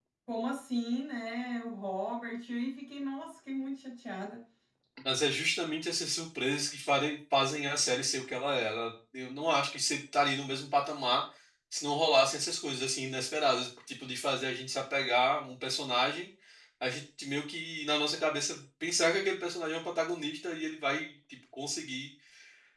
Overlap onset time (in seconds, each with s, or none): none